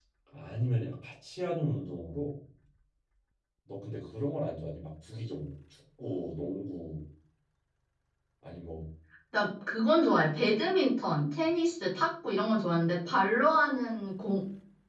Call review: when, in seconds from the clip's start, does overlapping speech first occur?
none

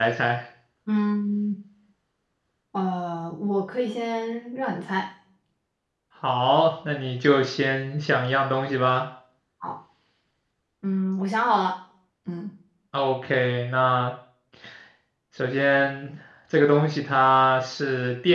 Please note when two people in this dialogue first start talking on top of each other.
none

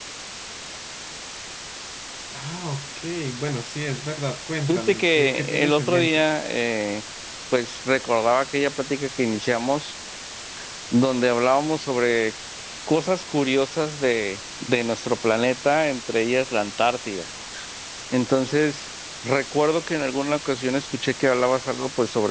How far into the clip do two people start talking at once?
4.7 s

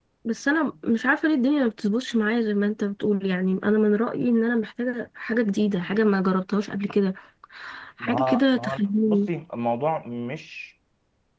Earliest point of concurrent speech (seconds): 8.0 s

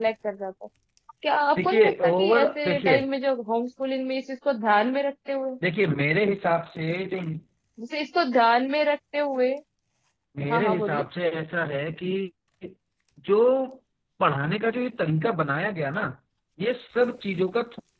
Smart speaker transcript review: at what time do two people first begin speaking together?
1.6 s

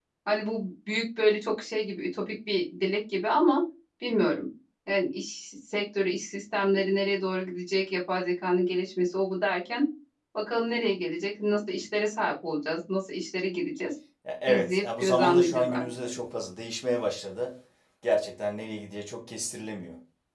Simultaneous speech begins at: 14.5 s

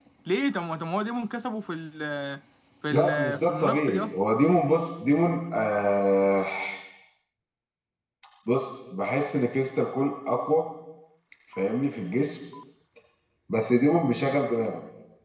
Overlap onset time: 2.9 s

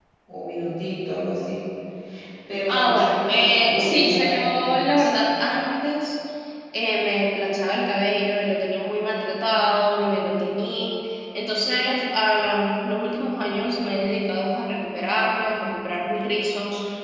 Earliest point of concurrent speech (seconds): 2.7 s

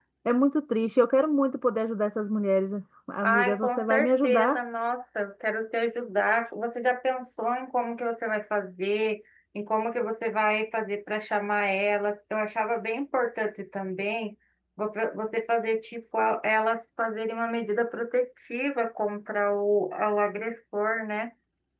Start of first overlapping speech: 3.2 s

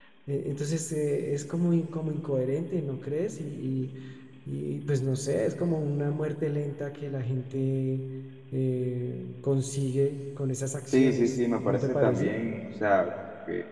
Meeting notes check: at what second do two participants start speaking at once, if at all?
10.9 s

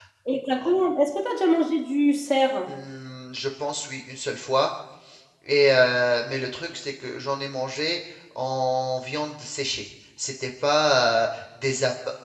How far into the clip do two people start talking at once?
none

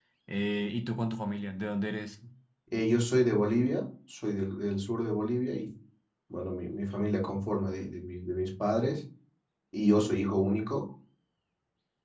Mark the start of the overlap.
none

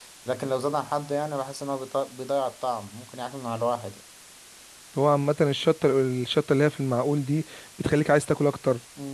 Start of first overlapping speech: none

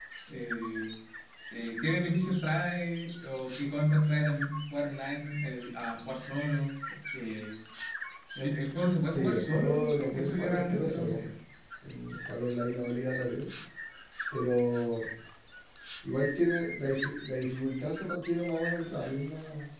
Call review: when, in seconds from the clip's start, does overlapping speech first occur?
9.0 s

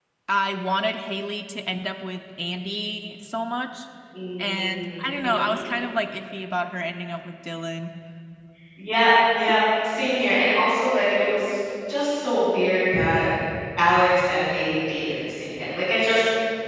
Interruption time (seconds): 4.4 s

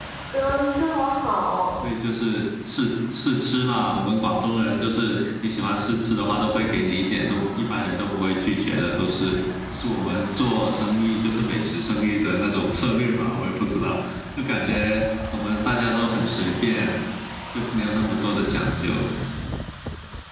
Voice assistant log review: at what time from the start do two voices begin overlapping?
none

